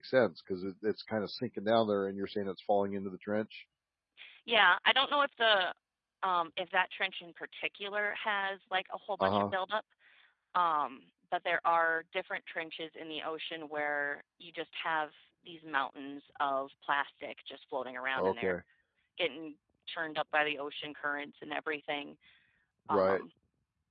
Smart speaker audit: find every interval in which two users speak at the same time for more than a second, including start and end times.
none

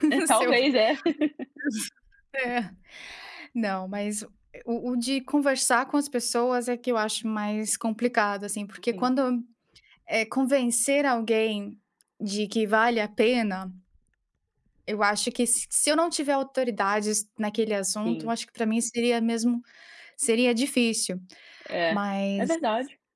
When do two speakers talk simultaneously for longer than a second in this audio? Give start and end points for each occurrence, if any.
none

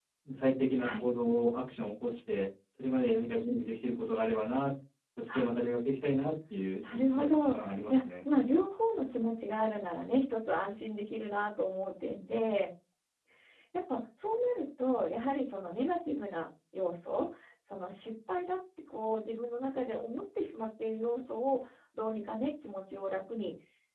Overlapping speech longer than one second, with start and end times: 6.9-8.1

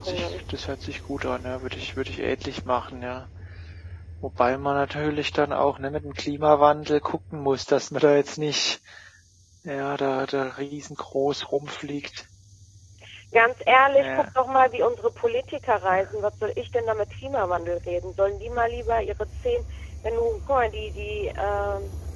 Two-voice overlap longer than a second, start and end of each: none

